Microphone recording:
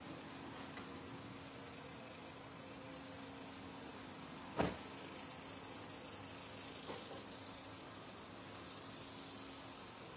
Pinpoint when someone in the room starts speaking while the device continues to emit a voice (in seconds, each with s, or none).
none